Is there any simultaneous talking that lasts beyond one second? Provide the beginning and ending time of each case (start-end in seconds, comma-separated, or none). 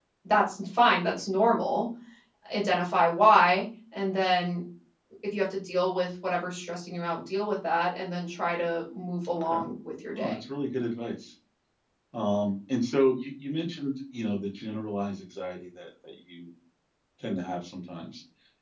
none